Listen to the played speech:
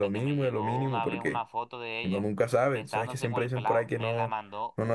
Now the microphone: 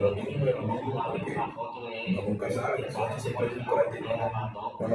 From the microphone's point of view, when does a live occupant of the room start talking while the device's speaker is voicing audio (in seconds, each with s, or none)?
none